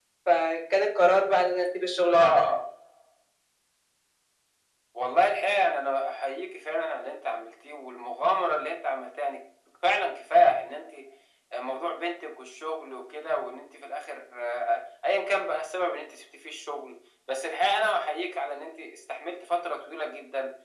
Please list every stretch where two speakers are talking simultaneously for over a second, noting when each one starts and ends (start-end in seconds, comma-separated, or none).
none